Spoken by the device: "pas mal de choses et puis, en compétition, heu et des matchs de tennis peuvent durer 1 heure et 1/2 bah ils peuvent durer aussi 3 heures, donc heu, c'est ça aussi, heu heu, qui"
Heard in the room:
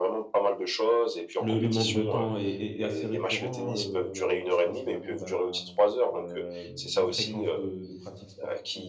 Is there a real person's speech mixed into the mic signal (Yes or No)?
Yes